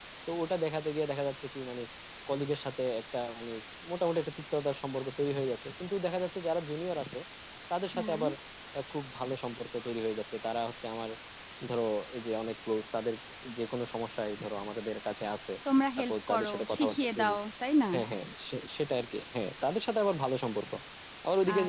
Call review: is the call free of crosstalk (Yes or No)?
No